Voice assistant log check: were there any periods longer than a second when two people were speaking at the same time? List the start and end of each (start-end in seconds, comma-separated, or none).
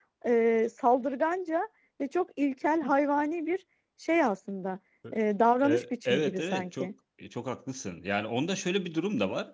5.6-6.9